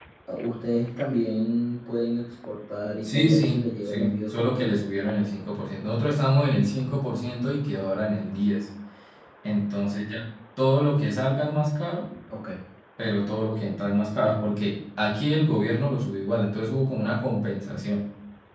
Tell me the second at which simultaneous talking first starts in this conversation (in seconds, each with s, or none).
3.0 s